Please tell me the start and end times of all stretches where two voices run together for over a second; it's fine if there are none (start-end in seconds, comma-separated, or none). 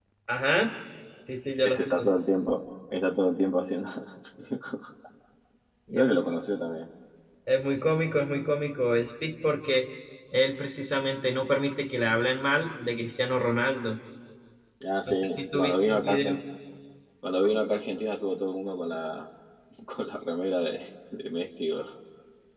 15.1-16.4